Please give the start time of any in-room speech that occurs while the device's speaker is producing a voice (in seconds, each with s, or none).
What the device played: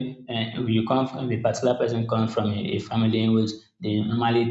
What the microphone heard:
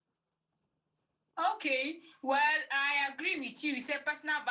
1.4 s